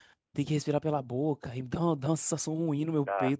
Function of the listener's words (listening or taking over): taking over